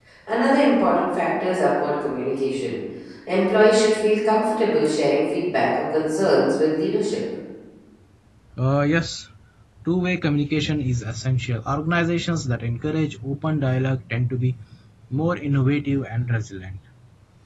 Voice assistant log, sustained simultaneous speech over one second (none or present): none